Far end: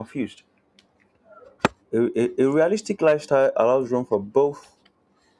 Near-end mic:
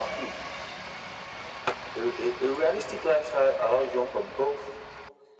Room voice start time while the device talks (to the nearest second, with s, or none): none